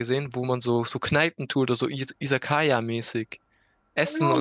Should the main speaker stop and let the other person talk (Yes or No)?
Yes